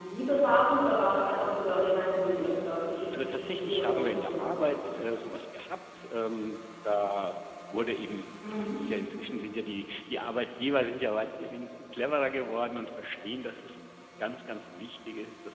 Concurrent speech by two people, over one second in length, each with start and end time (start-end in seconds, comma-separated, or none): 3.1-4.7